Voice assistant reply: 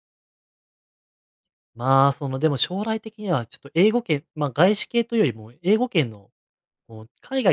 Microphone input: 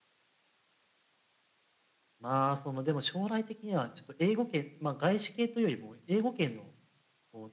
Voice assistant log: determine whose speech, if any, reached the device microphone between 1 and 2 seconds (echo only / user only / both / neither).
neither